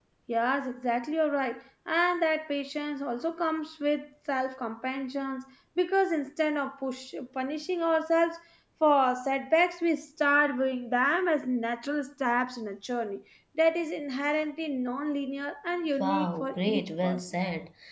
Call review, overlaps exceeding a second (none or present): present